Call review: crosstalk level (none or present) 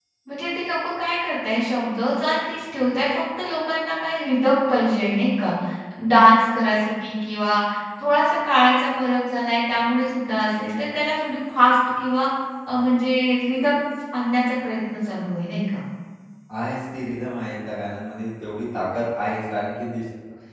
none